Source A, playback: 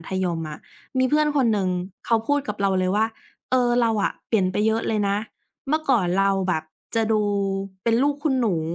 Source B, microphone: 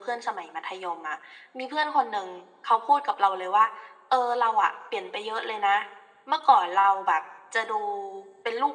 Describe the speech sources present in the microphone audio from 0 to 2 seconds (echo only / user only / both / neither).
echo only